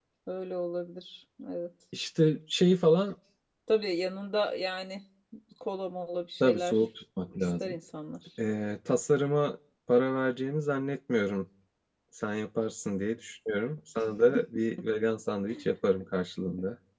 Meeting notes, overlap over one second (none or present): none